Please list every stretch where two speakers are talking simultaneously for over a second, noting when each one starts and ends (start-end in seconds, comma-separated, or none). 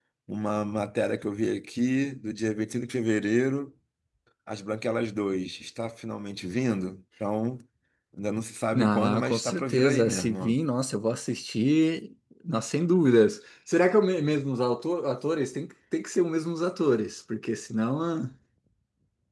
8.7-10.6